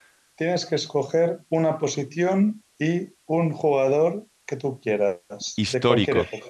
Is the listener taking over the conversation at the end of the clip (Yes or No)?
Yes